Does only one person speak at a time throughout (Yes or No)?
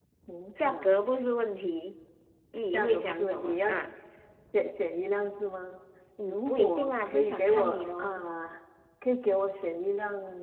No